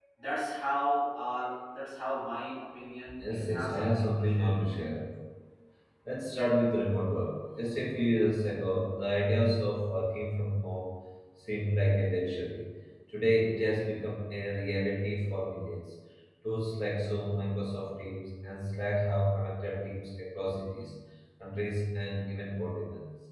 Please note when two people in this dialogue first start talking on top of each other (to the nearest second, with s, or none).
3 s